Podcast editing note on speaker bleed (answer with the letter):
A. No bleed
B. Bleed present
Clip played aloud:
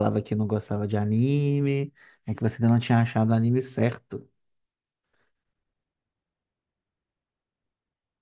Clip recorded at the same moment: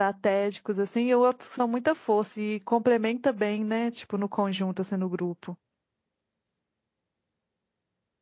A